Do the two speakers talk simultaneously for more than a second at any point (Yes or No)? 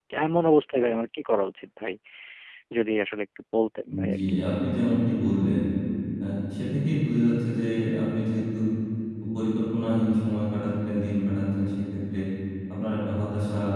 No